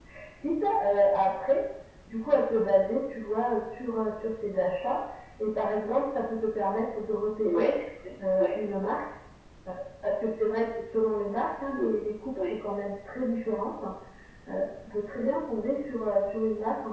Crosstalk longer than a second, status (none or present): none